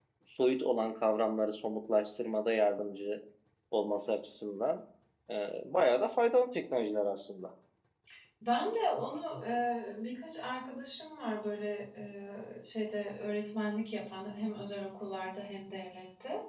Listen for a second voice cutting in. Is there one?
No

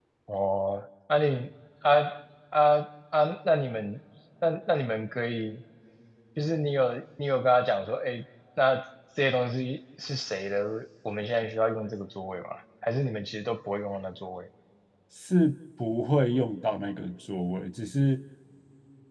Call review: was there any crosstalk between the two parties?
No

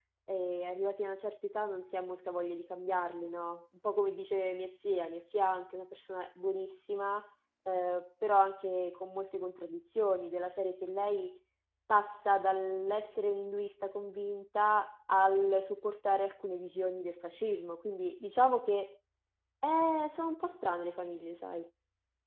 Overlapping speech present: No

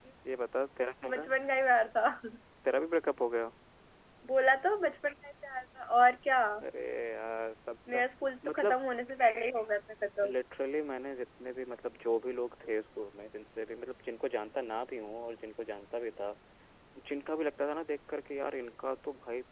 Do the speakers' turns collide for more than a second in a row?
No

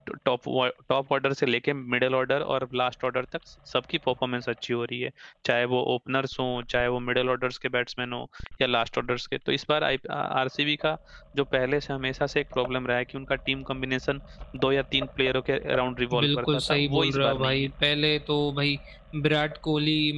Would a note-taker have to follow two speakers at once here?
Yes, from 16.1 s

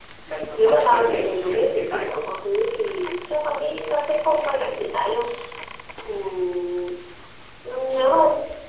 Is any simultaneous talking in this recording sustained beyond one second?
Yes, from 0.6 s

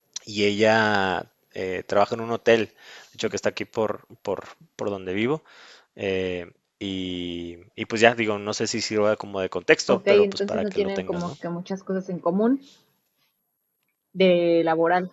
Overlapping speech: Yes, from 9.9 s

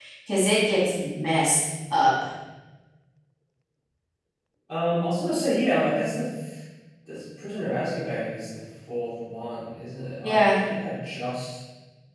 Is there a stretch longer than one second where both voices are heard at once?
No

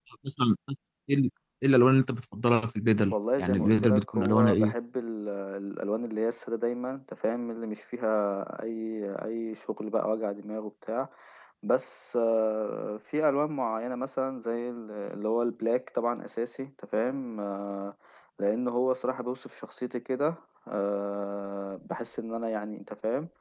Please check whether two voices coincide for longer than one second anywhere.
Yes, from 3.1 s

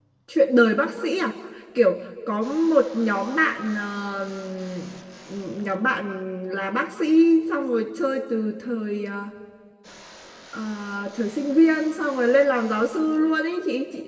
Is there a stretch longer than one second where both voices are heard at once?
No

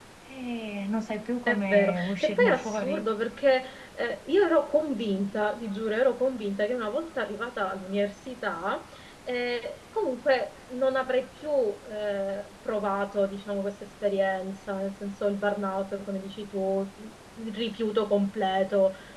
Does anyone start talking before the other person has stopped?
Yes, from 1.5 s

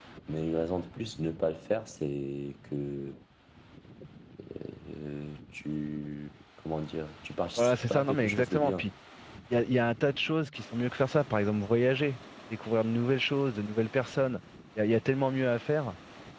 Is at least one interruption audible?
Yes, from 7.6 s

